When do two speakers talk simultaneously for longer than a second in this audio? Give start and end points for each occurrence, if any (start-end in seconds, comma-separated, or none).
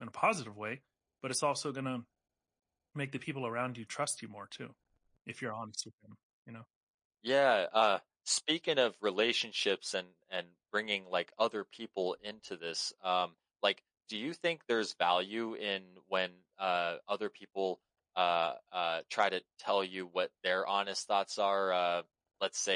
none